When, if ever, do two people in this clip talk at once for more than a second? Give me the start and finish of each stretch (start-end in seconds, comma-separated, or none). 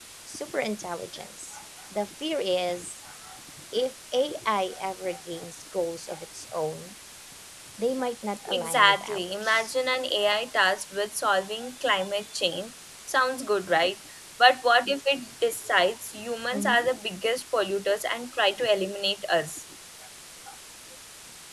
8.5-9.7